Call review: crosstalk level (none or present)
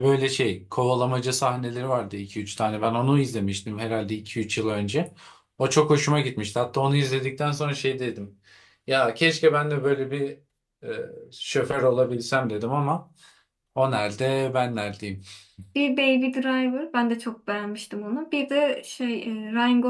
none